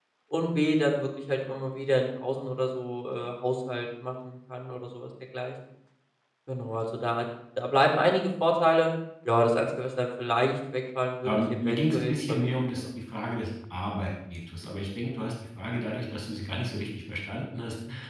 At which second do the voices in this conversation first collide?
11 s

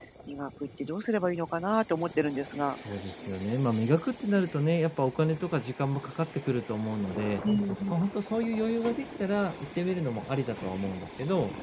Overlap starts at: none

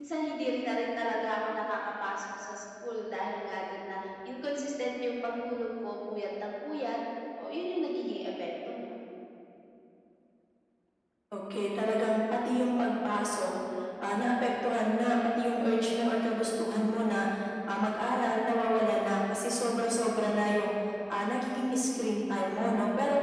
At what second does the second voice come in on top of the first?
none

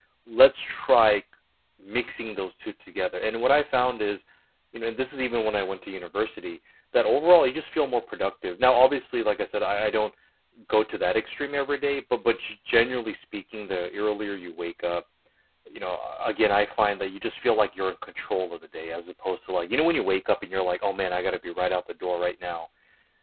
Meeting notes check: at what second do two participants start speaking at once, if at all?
none

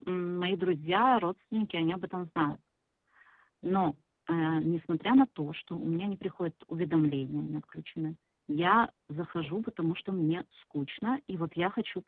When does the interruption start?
none

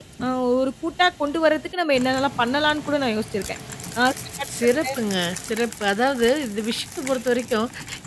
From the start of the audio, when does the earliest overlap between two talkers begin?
none

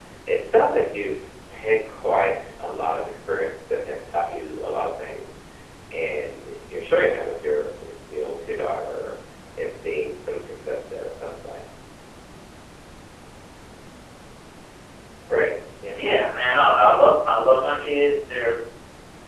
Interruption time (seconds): none

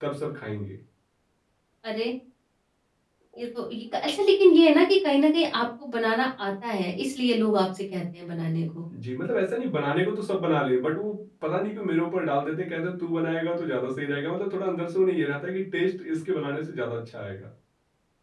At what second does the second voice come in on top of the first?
none

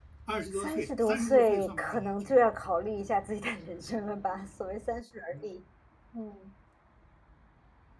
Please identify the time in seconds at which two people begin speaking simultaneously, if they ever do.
1 s

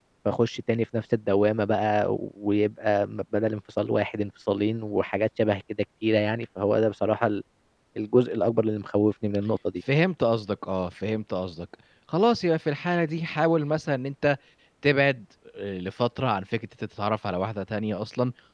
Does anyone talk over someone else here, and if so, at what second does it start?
none

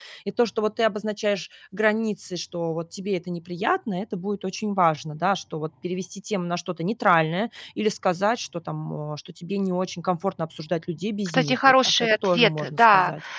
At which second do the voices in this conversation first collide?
11 s

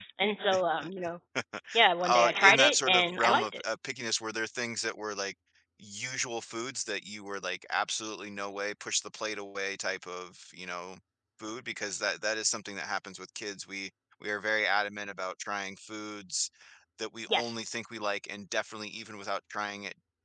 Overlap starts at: 2 s

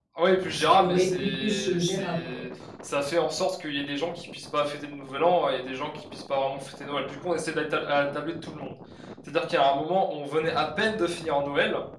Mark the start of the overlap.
1 s

